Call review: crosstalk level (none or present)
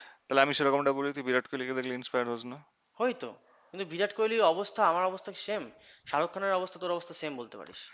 none